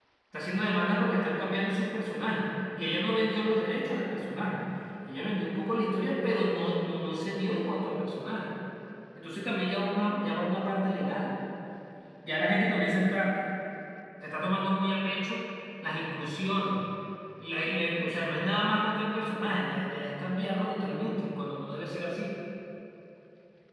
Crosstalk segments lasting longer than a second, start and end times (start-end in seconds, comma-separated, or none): none